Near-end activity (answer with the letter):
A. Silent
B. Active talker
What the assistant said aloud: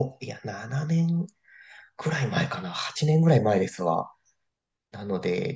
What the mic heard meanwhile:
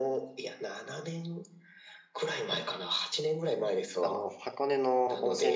B